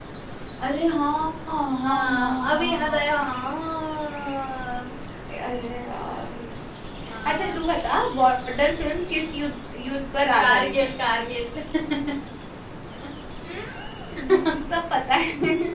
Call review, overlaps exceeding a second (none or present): present